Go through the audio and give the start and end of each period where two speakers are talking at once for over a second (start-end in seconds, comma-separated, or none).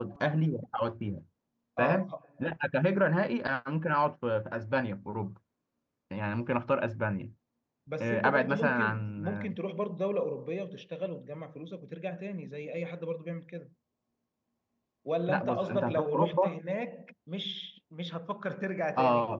8.0-9.5, 15.3-16.6